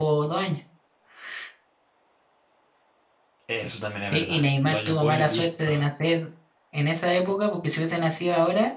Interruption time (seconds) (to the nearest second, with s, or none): 4 s